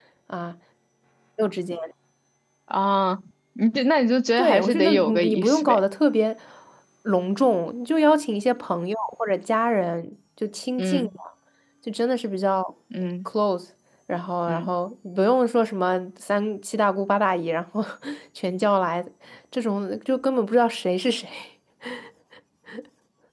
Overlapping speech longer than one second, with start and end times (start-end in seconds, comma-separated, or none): 4.4-5.8